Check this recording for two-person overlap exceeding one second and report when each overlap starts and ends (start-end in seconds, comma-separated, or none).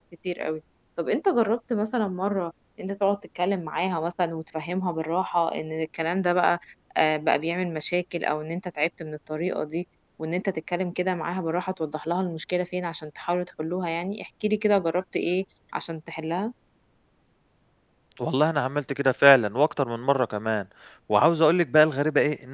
none